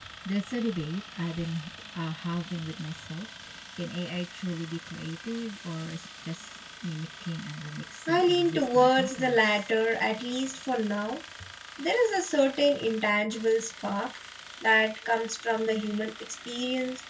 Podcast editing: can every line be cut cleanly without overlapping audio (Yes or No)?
No